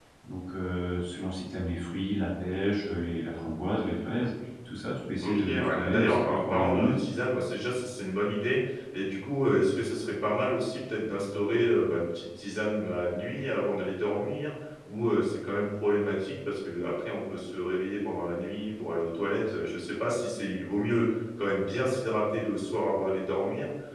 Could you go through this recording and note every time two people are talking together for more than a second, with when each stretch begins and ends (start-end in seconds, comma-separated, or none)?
5.2-6.9